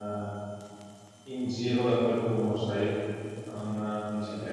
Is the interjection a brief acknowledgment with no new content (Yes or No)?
No